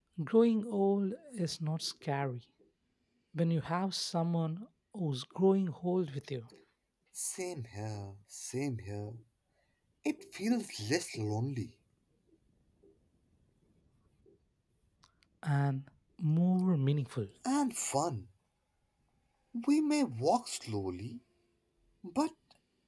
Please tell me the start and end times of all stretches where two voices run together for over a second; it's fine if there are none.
none

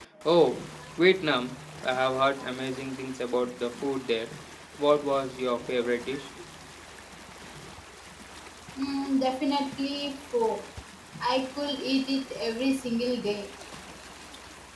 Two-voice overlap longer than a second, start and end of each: none

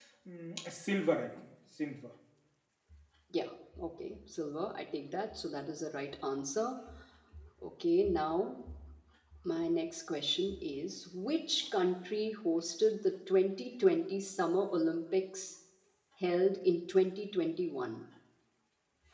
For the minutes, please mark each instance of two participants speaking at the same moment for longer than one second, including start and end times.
none

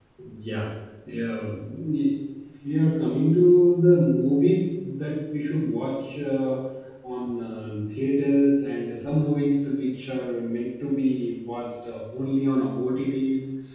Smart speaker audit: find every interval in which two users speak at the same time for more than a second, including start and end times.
none

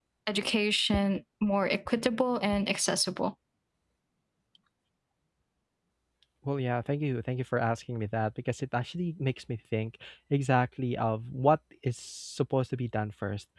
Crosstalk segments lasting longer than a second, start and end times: none

